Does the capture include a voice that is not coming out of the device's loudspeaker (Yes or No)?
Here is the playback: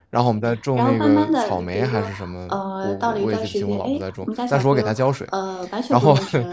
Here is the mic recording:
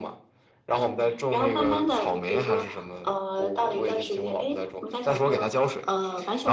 No